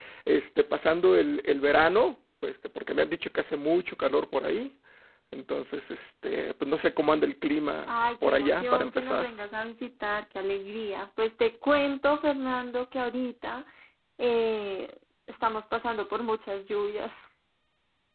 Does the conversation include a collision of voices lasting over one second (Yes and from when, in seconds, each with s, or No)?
Yes, from 7.9 s